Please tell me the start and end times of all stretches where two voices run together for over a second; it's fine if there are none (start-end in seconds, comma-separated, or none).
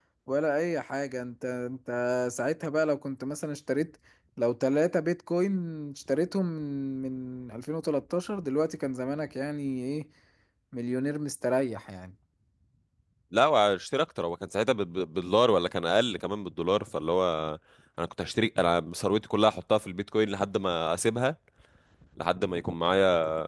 none